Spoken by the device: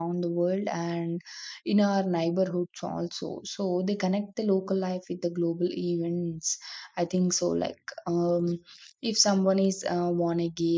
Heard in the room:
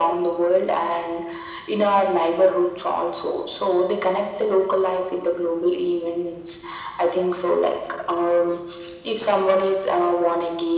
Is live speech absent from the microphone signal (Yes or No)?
Yes